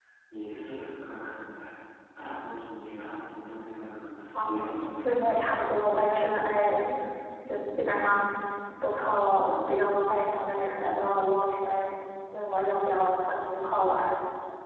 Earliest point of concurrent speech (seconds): 4.3 s

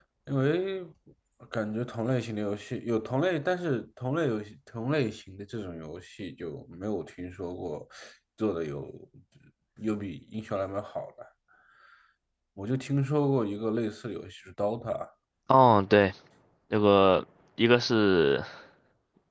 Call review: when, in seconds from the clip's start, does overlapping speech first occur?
none

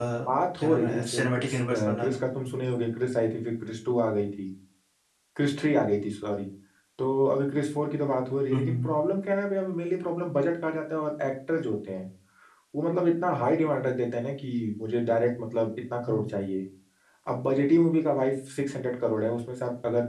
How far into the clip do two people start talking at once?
0.6 s

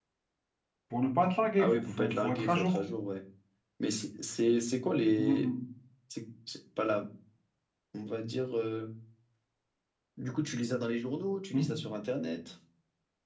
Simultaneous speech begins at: 1.6 s

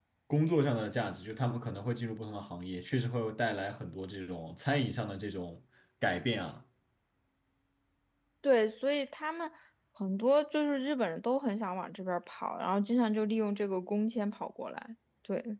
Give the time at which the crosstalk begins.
none

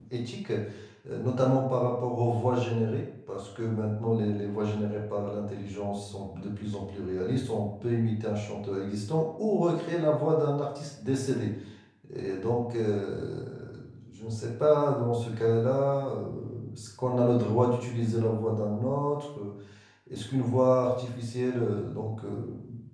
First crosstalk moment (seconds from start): none

